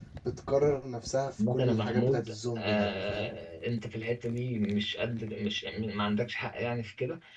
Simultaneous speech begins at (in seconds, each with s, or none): 1.4 s